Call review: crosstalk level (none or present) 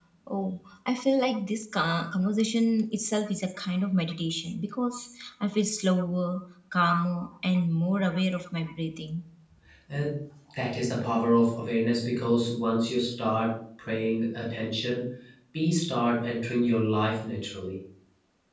none